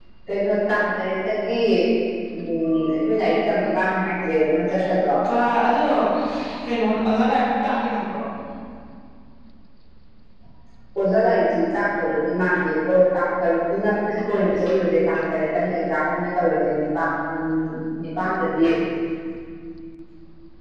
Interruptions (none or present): none